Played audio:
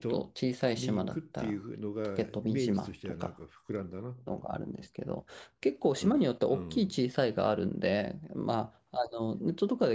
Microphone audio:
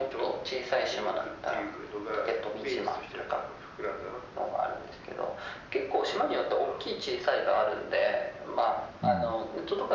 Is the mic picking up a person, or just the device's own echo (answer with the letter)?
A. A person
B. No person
A